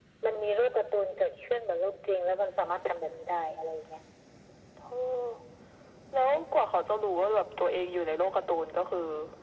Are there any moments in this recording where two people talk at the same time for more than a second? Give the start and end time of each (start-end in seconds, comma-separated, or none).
none